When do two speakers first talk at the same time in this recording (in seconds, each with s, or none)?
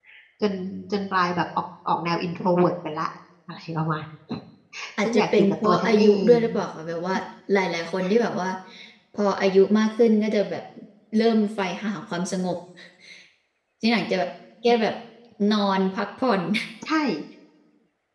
5.0 s